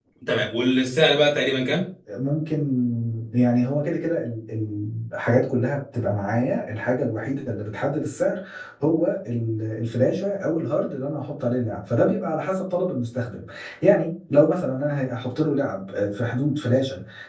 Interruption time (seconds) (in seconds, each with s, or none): none